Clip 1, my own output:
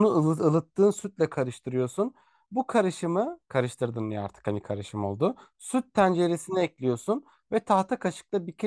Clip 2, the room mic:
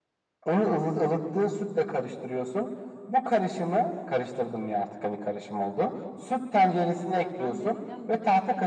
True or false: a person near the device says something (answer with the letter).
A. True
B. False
A